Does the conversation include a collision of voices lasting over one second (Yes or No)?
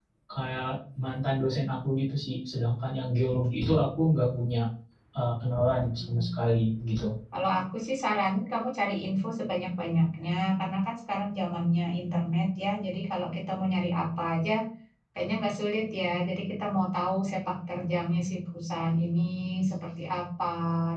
No